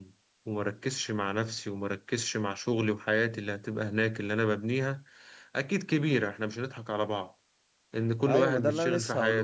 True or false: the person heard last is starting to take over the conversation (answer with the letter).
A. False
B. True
B